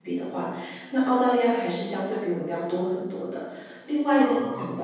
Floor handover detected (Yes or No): No